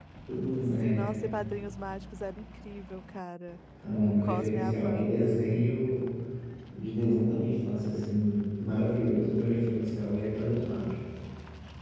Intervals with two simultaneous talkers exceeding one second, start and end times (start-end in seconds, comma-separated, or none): 4.1-5.4